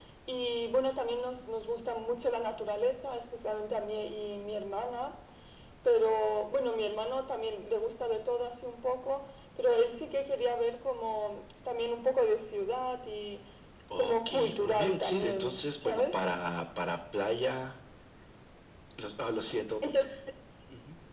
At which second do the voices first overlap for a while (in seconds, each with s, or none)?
14.0 s